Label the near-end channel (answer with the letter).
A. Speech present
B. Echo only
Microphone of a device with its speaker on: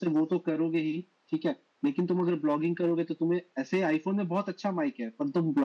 B